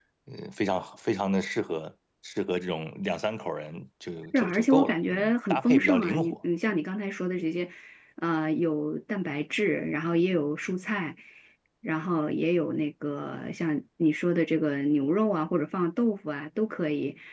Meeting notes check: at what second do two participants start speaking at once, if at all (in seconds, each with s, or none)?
4.3 s